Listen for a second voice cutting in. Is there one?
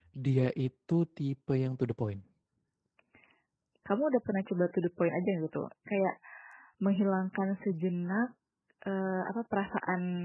No

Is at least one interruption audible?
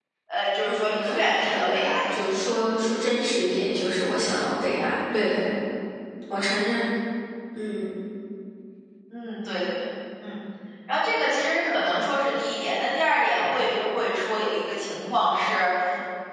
Yes, from 0.6 s

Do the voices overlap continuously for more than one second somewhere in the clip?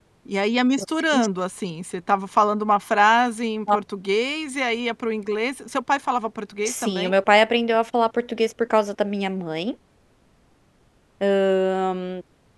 No

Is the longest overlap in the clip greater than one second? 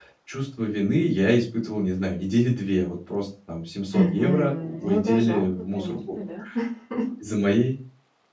Yes, from 3.9 s

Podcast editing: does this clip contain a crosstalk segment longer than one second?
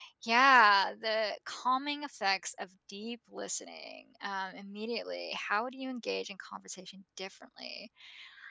No

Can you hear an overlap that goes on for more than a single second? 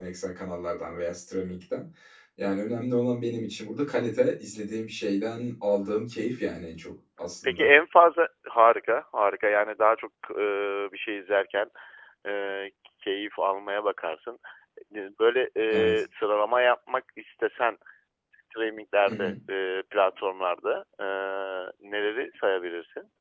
No

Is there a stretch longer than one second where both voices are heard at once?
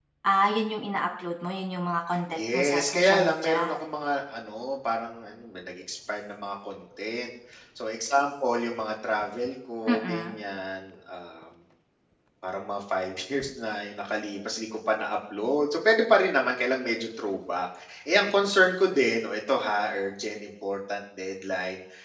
Yes, from 2.3 s

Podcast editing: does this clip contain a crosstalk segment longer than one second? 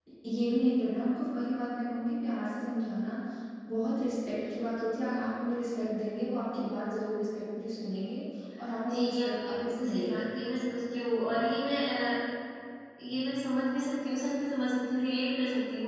Yes, from 8.8 s

